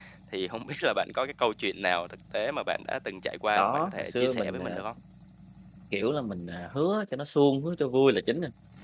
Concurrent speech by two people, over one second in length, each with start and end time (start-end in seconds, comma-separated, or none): 3.5-4.8